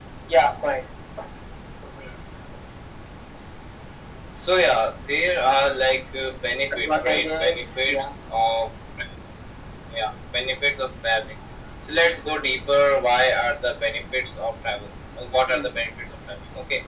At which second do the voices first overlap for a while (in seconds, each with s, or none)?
6.8 s